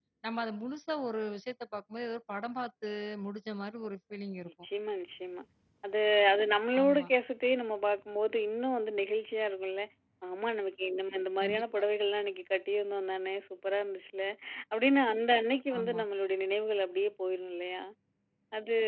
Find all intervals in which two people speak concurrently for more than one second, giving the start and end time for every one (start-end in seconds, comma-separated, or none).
none